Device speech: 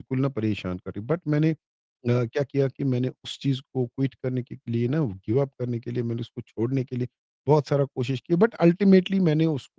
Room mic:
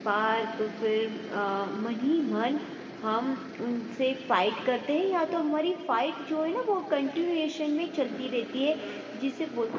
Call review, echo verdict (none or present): none